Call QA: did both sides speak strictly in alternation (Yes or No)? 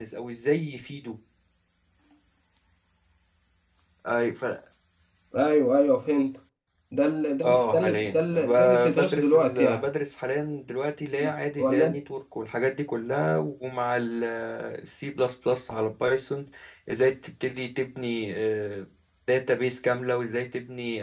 No